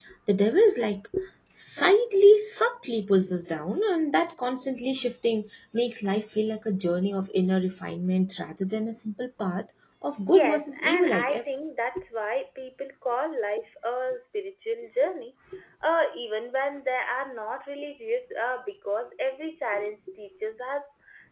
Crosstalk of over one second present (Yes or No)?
Yes